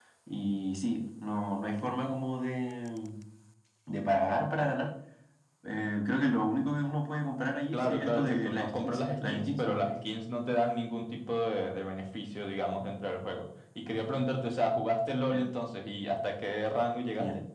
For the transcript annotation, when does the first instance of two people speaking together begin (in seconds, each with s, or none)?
7.7 s